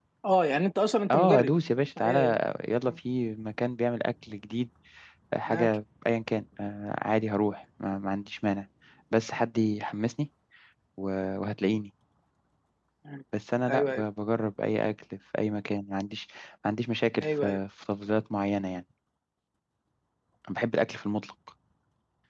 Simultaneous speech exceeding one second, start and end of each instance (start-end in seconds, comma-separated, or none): none